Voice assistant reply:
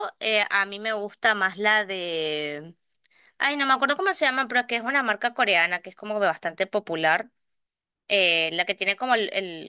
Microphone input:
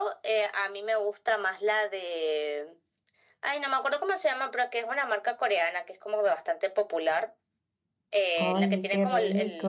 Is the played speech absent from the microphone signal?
No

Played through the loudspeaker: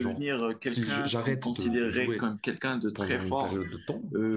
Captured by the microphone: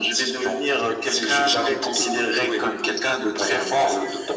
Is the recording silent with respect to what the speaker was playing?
No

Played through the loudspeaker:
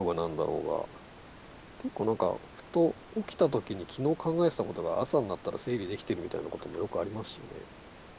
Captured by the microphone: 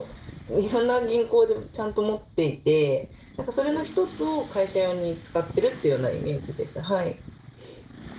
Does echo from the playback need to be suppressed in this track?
No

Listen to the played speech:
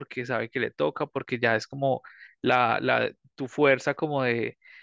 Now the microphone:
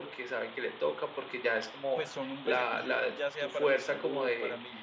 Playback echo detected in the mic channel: Yes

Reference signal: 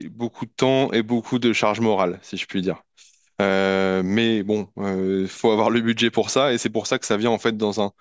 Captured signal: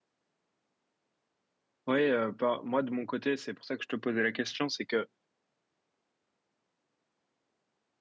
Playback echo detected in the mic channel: No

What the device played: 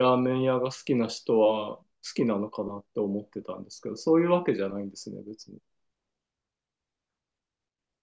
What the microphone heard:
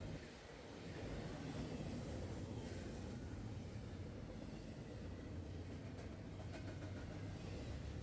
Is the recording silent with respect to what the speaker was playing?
Yes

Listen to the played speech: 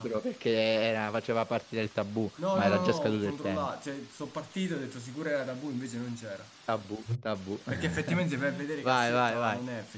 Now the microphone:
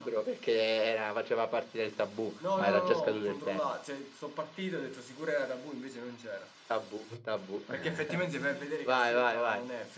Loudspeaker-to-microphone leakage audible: Yes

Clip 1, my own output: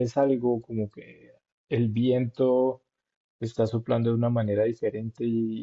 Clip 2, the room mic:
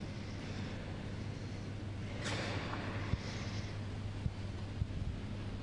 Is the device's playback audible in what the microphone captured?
No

